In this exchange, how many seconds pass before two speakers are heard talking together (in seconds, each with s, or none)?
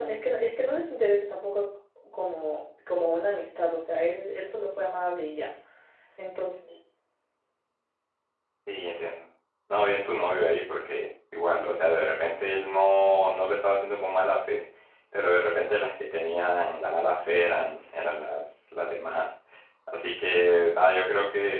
none